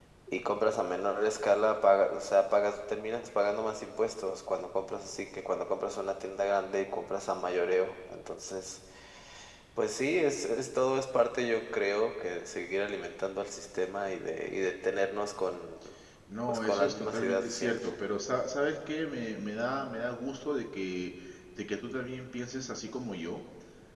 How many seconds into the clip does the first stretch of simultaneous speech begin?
16.5 s

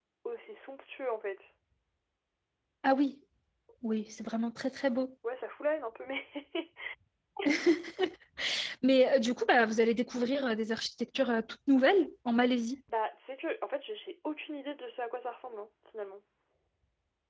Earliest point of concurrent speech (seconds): none

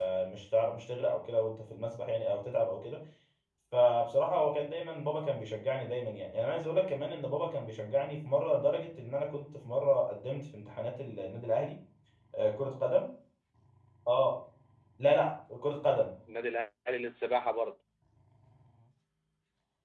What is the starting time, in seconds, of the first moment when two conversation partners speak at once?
none

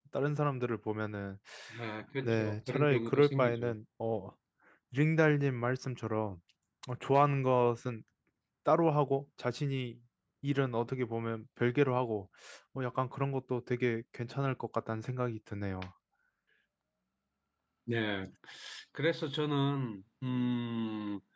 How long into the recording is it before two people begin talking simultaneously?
2.2 s

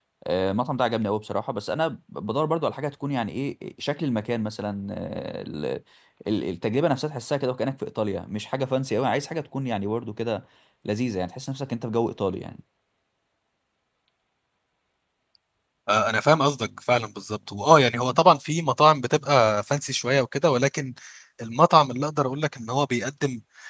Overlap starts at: none

